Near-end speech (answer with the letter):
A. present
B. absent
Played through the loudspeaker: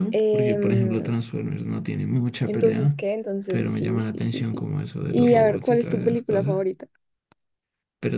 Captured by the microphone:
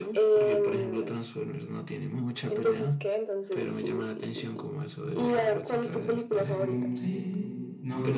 A